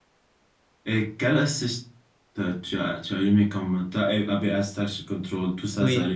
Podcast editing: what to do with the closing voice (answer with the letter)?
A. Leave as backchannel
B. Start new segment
B